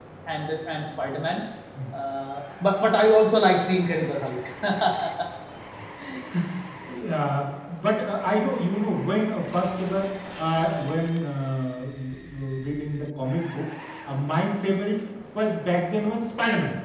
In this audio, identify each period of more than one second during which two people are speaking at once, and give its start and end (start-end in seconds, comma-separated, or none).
none